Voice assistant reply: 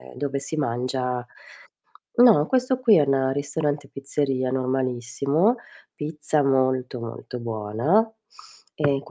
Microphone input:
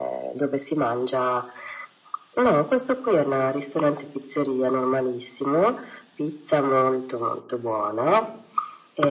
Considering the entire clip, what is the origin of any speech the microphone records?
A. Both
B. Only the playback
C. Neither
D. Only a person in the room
B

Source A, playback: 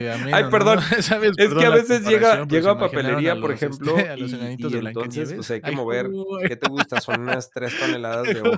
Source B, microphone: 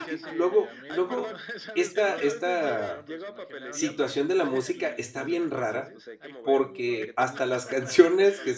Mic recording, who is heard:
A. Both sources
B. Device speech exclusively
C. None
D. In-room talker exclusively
A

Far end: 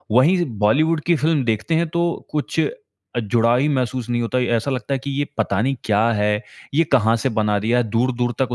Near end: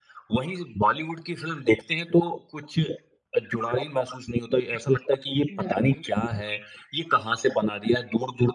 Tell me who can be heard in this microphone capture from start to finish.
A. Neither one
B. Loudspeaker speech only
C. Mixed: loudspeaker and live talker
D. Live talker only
C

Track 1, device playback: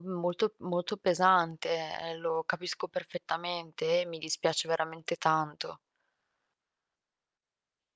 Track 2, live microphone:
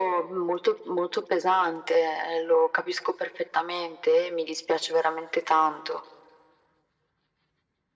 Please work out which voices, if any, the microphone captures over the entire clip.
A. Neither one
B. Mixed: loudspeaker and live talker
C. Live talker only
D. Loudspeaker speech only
D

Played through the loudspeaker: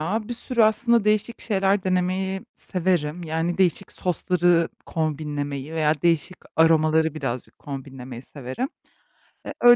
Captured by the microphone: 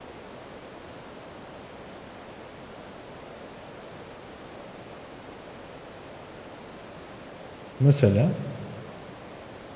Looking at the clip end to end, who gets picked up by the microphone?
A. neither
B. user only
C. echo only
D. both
B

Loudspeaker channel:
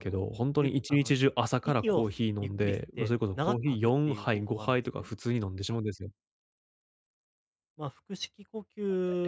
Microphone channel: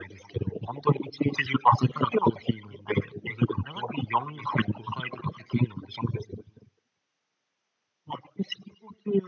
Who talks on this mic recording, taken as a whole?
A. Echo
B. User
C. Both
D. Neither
A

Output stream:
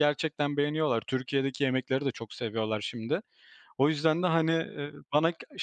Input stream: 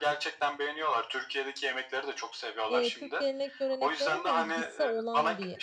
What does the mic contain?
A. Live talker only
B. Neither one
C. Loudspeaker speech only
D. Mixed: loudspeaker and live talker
D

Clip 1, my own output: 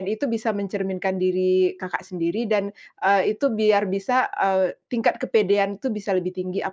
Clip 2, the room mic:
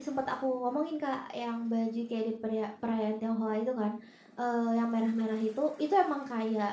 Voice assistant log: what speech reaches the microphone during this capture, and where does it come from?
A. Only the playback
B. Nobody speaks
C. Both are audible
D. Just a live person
D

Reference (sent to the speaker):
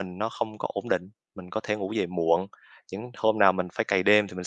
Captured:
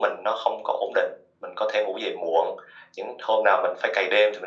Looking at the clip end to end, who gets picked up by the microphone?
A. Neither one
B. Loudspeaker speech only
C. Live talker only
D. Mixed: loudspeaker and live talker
B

